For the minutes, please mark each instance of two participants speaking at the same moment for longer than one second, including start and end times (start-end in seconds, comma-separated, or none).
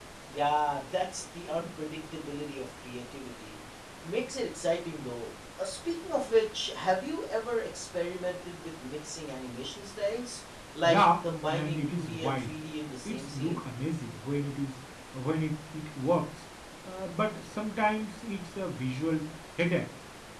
10.8-12.5